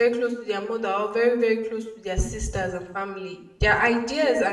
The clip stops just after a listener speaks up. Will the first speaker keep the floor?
No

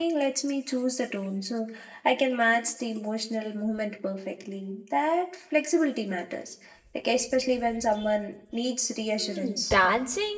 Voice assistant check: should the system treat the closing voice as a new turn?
Yes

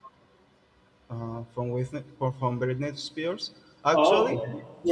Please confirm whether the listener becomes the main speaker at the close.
Yes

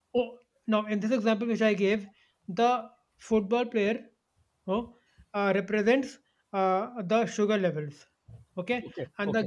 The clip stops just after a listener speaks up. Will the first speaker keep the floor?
Yes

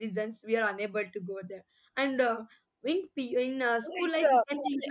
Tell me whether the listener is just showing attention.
No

